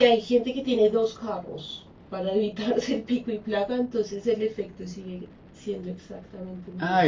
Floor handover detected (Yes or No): Yes